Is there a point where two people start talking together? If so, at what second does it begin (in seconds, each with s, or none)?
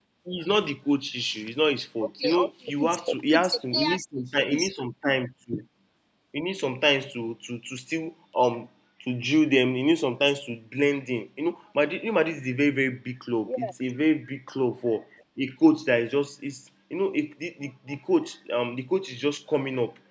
2.2 s